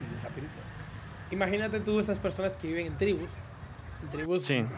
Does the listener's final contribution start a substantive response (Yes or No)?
No